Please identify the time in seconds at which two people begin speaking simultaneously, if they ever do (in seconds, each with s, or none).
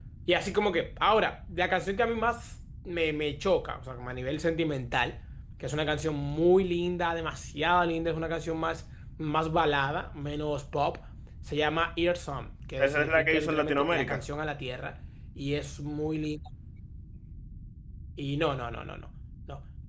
12.8 s